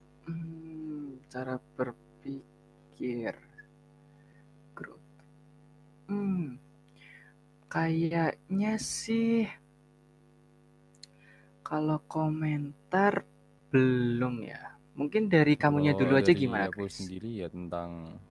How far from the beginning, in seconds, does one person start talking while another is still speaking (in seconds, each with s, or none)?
15.6 s